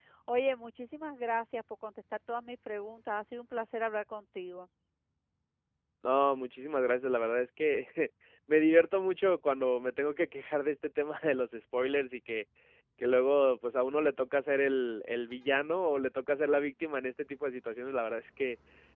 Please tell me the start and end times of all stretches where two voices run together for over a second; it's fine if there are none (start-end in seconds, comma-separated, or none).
none